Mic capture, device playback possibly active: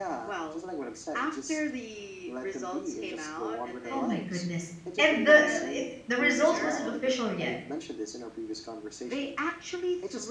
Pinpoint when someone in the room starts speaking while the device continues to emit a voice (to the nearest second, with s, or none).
4 s